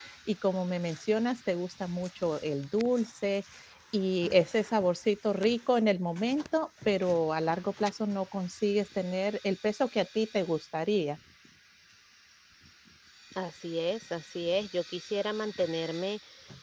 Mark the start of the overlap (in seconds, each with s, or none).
none